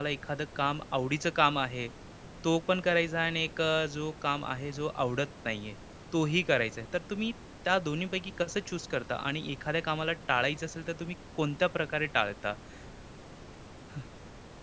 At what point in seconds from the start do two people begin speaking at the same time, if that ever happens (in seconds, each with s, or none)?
none